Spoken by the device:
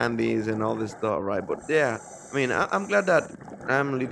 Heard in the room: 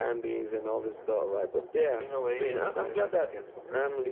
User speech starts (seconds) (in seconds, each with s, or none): 1.9 s